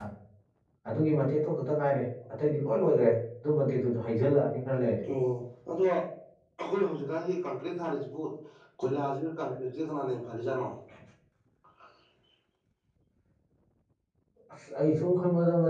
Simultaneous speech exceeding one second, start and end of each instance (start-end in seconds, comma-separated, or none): none